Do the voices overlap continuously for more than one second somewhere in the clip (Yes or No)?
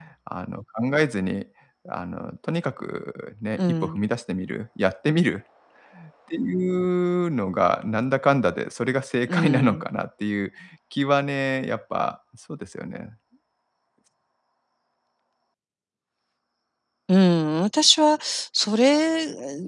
No